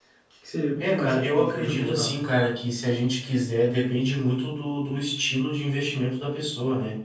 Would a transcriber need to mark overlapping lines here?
Yes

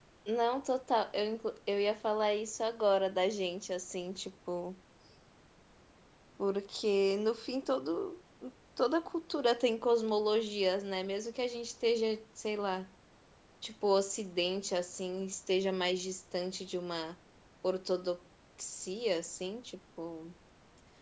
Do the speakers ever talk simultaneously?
No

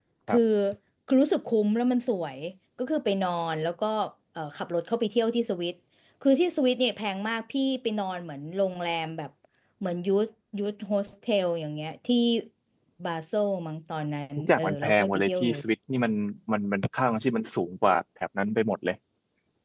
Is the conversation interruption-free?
No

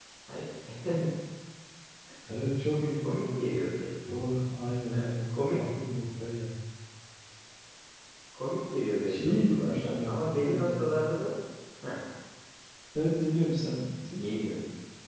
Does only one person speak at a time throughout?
No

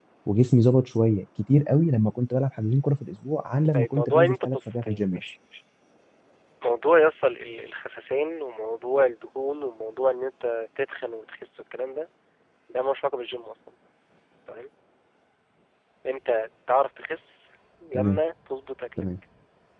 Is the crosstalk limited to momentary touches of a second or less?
No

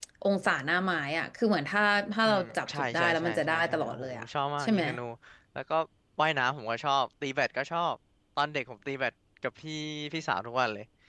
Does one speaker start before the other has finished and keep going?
Yes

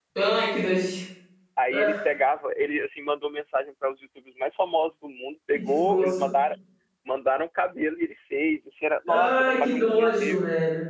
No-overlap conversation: No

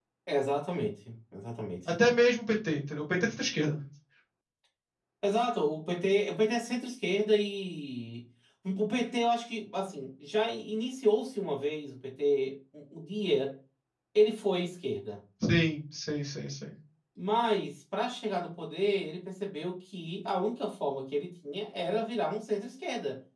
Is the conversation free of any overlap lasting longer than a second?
Yes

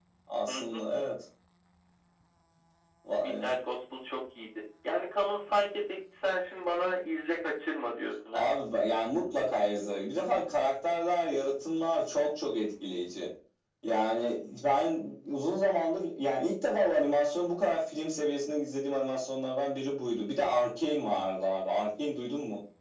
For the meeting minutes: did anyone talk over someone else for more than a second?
No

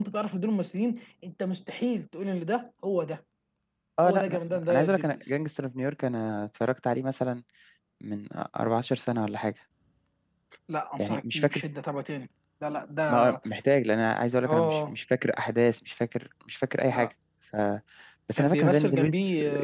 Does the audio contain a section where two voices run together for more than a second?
Yes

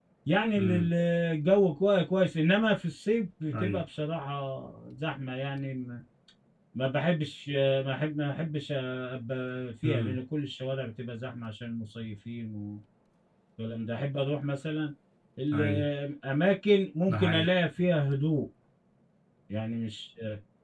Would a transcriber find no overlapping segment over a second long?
Yes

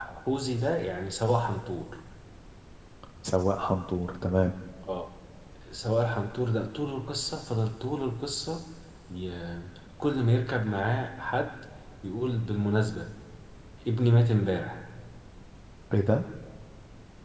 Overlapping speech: No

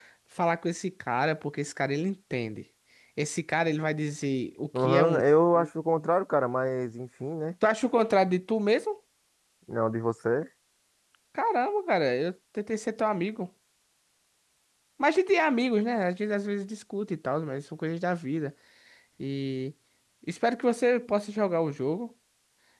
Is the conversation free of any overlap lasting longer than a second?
Yes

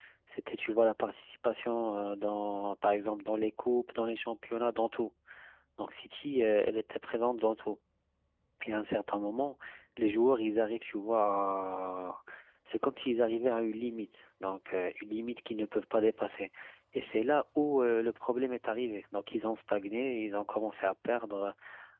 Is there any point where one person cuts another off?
No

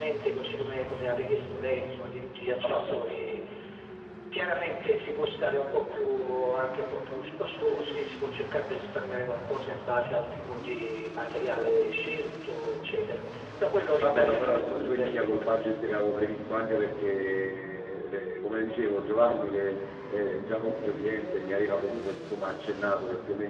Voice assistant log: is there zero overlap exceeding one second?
No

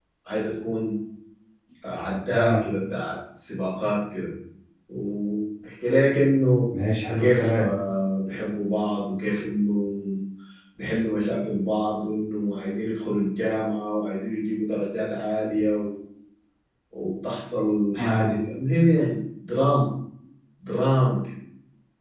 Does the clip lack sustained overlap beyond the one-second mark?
Yes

